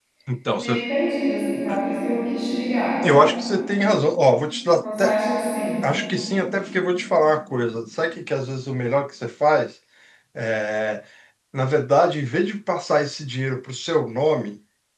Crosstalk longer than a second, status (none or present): none